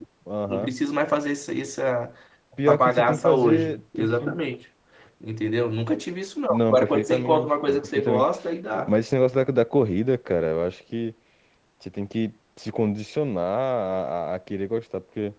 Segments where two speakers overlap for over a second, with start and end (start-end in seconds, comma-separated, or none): 2.7-4.3, 6.5-8.3